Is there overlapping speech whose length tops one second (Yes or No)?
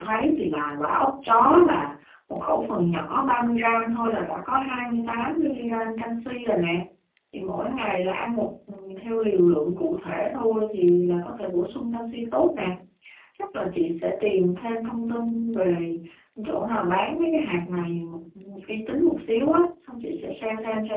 No